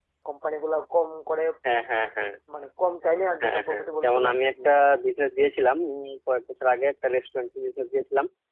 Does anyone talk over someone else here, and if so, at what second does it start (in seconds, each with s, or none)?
3.4 s